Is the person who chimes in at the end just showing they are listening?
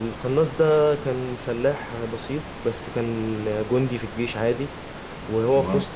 Yes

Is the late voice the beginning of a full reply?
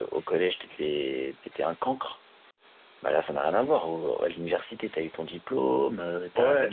Yes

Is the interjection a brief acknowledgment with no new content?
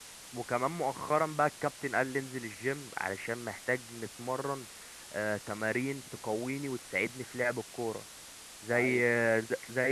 Yes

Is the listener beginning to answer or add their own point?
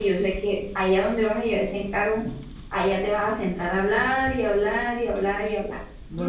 Yes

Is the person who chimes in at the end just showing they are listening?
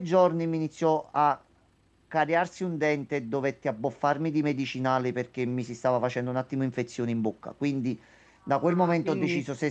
Yes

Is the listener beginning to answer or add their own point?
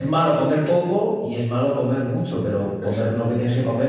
No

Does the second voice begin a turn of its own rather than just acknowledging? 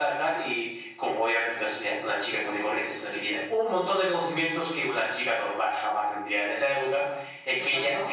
No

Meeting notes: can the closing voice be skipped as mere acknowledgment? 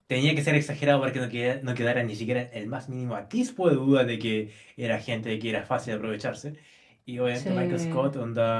Yes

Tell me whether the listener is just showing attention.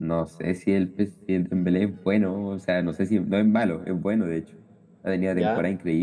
Yes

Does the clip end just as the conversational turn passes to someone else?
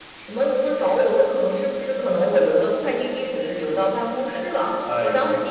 No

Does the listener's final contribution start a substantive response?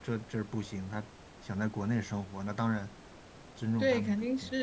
Yes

